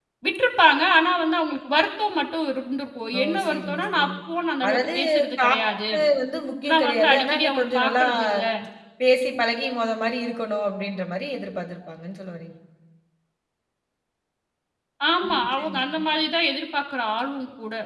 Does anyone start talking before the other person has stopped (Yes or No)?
Yes